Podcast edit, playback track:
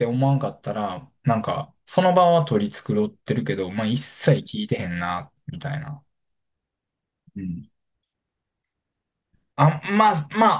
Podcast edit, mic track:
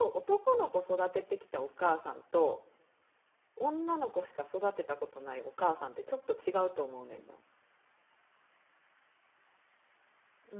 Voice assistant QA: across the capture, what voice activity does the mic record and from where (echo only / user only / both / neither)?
user only